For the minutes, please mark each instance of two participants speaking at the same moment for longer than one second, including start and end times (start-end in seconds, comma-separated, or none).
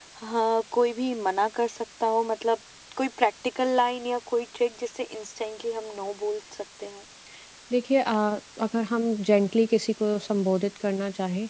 none